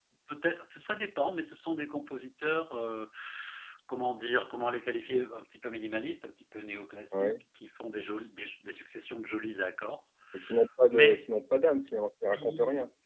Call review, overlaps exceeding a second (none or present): none